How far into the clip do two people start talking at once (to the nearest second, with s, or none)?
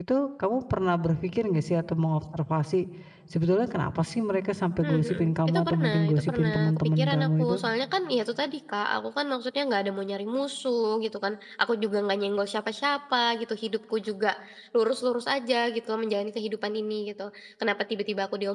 5 s